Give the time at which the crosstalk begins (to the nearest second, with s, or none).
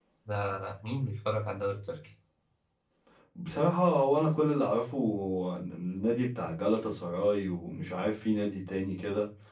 none